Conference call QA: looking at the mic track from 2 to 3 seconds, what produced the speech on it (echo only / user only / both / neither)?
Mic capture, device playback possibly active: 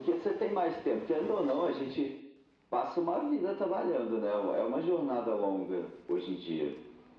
echo only